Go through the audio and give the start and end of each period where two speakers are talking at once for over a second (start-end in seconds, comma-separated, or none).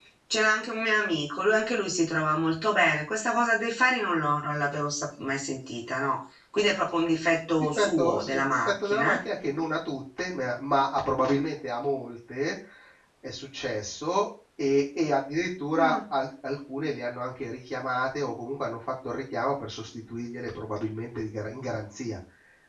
7.8-9.2